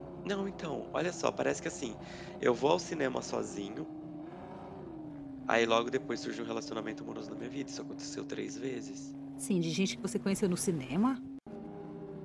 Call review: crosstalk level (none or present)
none